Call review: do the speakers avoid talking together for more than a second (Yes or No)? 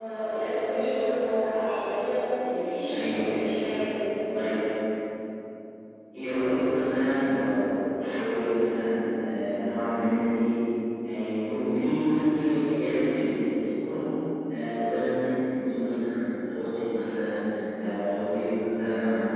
No